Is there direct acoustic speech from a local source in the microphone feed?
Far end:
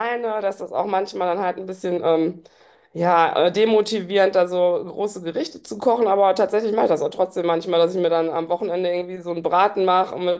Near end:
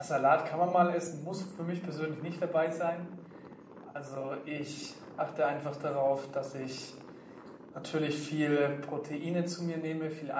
Yes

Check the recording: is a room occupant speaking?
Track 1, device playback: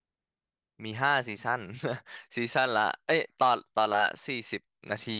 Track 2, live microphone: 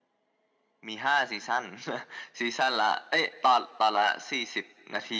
No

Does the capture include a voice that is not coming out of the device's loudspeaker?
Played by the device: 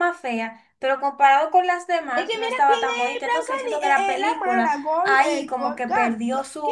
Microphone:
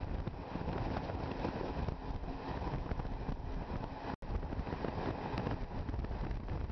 No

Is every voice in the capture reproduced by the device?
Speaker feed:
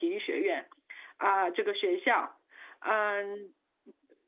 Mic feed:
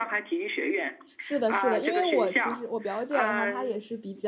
No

